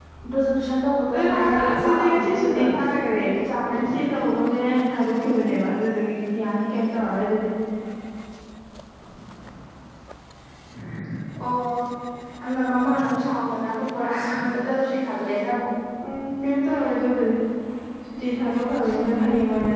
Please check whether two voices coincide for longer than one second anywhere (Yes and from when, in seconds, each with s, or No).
Yes, from 1.2 s